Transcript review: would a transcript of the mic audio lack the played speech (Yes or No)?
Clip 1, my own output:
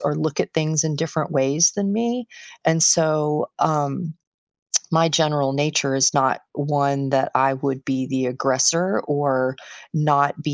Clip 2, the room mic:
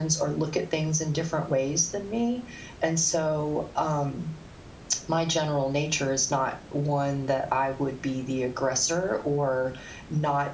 No